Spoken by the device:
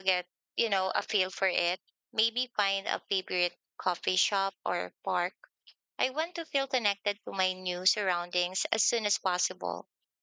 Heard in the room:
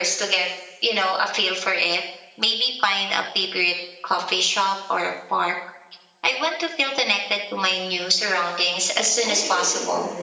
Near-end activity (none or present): present